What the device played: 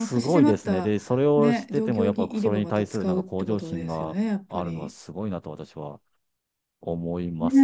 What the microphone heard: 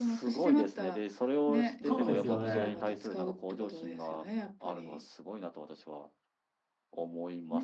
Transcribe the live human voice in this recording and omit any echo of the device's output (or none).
そうですよね。